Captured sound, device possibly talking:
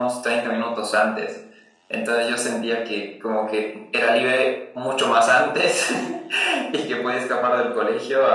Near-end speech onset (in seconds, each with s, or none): none